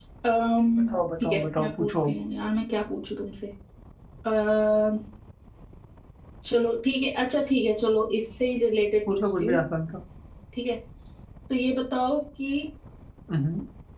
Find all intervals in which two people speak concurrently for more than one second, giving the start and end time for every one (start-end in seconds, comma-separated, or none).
0.8-2.2